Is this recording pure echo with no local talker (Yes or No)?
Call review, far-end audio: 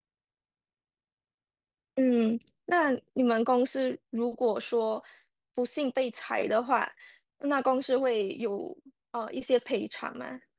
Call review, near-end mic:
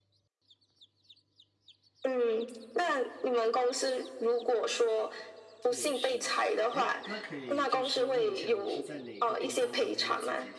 No